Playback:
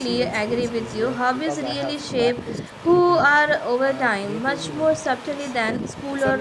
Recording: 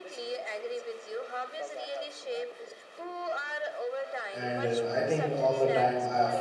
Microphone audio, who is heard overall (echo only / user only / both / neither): both